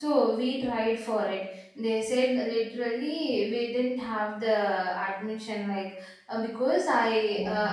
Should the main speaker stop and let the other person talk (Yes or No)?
No